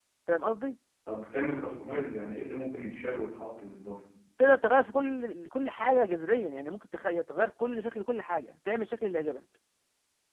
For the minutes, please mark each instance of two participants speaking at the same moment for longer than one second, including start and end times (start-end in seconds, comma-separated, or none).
none